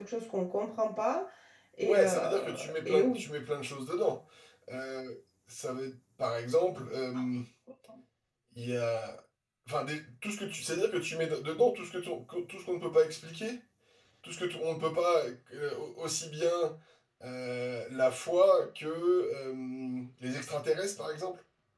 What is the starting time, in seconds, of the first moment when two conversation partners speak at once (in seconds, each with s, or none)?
1.9 s